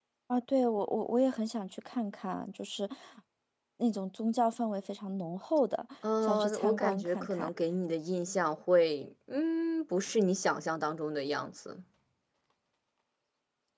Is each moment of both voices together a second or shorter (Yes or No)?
No